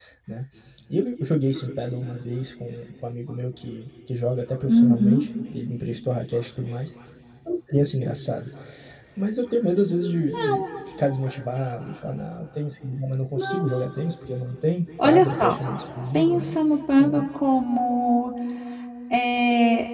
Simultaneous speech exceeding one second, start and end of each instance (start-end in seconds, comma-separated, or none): none